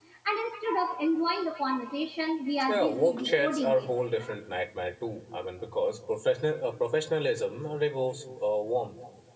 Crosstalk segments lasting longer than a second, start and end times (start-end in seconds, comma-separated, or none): 2.7-3.9